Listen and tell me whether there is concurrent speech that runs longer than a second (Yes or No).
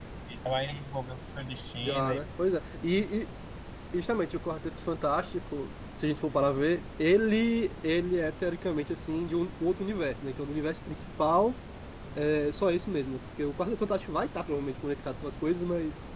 No